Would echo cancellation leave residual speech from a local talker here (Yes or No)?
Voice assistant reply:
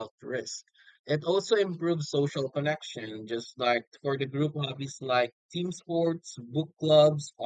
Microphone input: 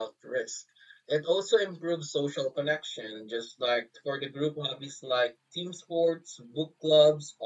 No